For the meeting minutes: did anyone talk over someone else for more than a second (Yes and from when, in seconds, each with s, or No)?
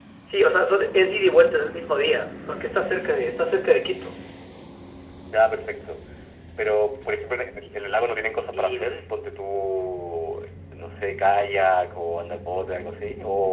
No